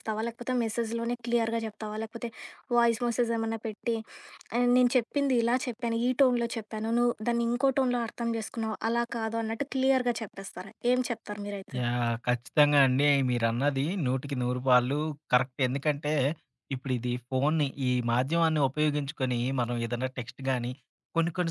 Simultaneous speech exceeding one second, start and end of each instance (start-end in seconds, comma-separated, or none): none